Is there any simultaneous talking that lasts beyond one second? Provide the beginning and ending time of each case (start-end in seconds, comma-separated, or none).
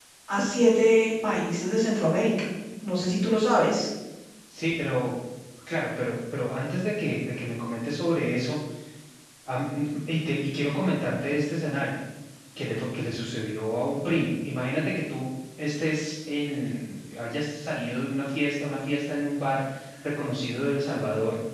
none